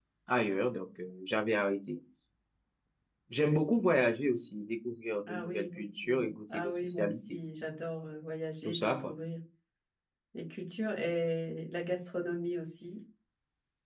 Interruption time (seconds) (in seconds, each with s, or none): 5.3 s